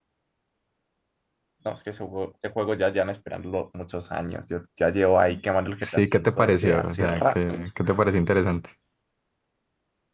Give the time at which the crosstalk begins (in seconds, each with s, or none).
5.8 s